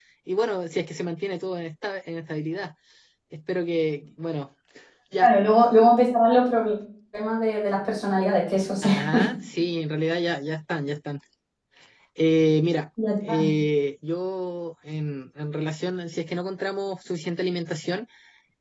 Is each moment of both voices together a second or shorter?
Yes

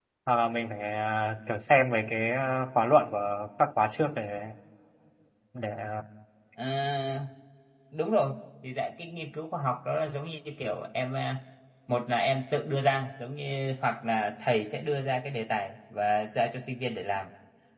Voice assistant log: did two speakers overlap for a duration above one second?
No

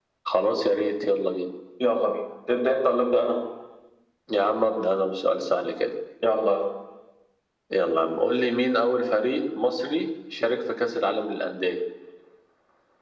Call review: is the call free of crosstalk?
Yes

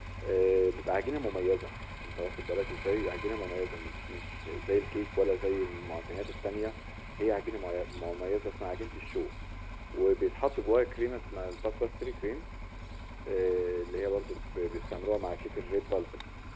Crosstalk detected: No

